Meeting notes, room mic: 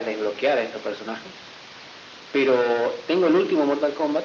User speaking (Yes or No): No